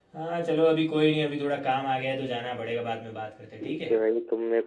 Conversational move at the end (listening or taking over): taking over